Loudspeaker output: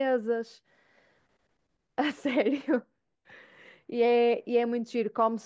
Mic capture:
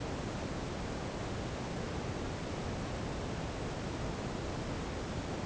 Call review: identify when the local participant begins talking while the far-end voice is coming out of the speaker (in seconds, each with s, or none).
none